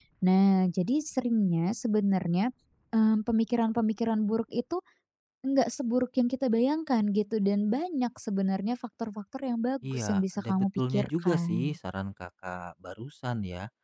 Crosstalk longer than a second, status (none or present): present